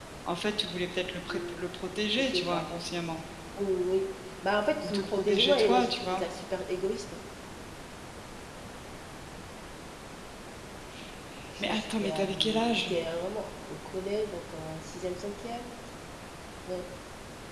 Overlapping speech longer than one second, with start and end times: 4.8-6.2, 11.6-12.9

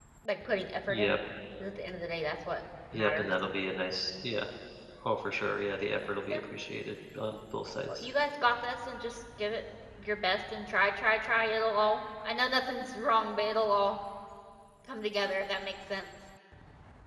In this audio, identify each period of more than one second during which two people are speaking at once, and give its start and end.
none

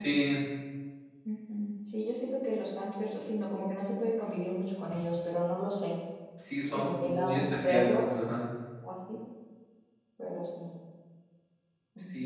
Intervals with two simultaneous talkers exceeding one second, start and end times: 6.7-8.2

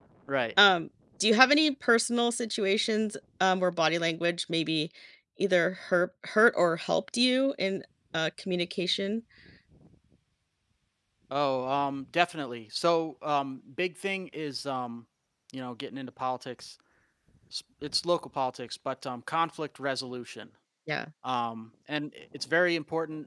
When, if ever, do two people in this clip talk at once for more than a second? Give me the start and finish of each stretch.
none

